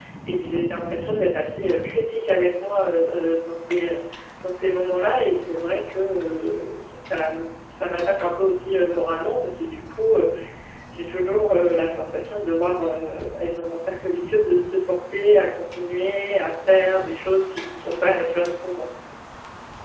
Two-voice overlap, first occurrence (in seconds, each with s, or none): none